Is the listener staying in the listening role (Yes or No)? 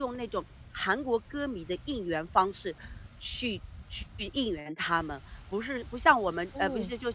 Yes